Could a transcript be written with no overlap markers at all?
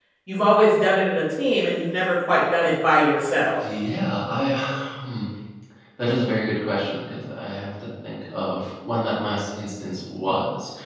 Yes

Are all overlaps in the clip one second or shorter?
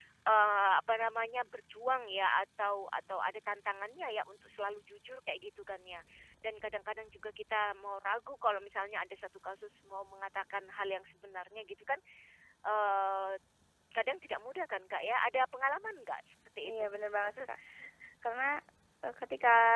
Yes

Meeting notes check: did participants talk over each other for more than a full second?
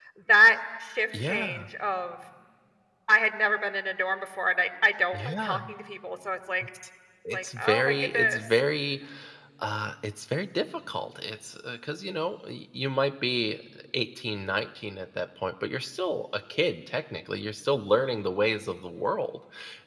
Yes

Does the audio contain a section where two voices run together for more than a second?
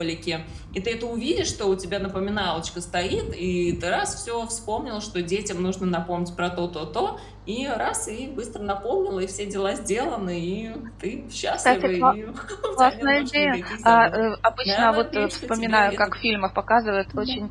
Yes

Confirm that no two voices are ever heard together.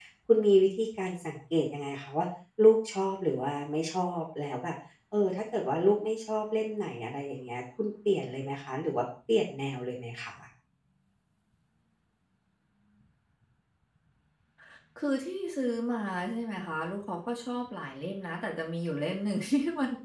Yes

